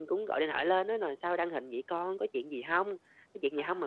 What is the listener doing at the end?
listening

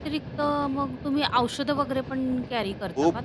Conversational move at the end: taking over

